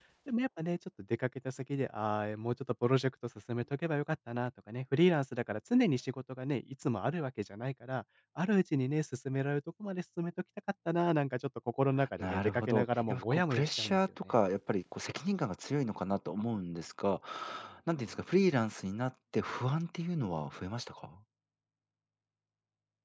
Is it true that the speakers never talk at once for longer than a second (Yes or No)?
No